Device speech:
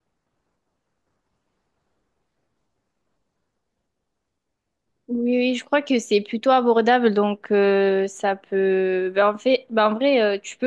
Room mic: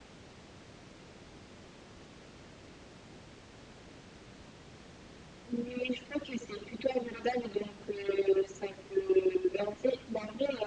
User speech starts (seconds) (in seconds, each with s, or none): none